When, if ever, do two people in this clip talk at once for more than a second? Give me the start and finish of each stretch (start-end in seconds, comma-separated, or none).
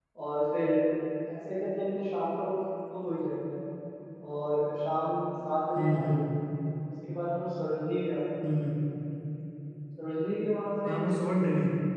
none